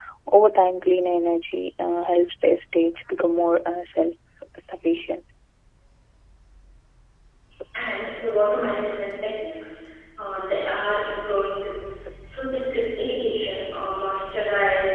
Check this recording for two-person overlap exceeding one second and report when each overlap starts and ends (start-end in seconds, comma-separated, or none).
none